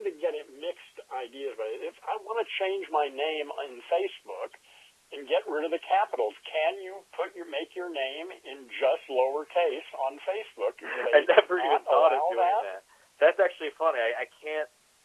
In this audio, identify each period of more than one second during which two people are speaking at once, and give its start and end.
10.8-12.6

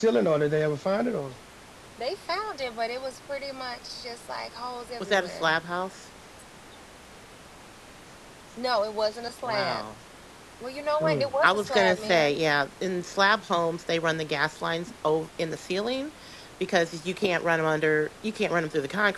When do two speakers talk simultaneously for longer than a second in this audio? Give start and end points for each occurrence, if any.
11.0-12.3

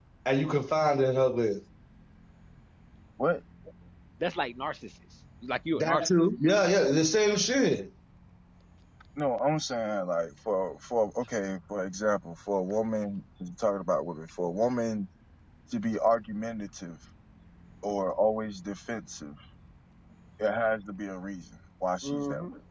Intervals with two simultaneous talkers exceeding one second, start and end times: none

